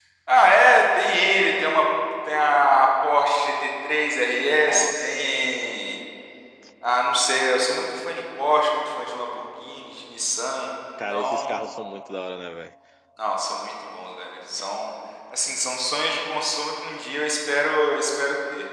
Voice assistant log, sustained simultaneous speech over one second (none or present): present